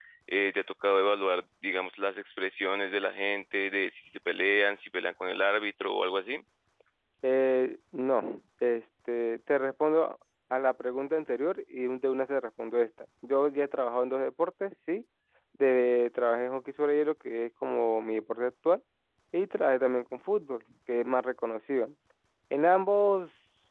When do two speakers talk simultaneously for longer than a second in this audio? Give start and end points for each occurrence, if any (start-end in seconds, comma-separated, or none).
none